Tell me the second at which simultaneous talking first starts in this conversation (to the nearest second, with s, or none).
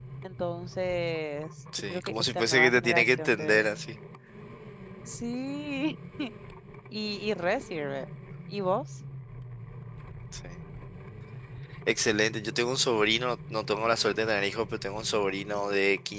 2 s